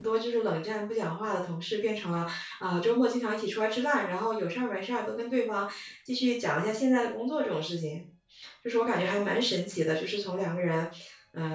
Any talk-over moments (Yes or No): No